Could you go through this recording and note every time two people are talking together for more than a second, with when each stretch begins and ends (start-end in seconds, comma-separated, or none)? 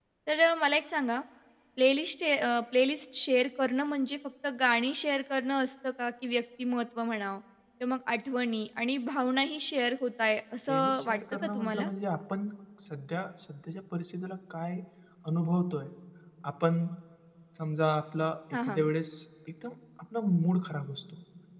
10.7-11.9